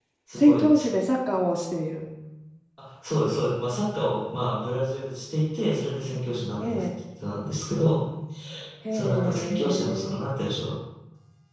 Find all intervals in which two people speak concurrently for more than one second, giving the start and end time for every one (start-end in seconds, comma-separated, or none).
8.9-10.2